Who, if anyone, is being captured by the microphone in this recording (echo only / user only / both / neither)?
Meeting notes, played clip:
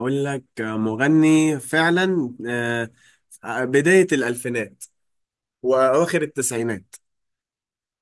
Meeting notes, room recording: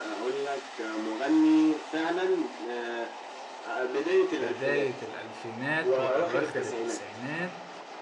both